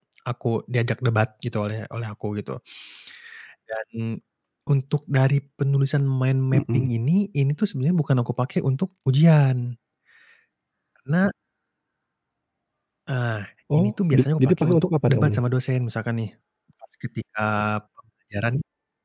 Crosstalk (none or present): present